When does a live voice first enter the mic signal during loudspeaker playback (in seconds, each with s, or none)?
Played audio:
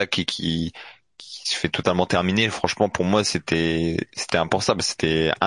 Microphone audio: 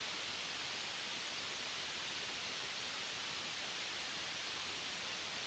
none